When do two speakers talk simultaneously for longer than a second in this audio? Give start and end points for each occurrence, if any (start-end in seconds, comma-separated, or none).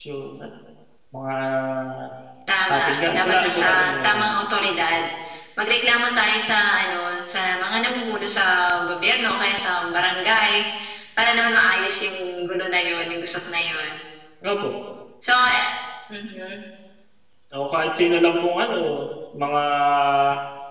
2.8-4.4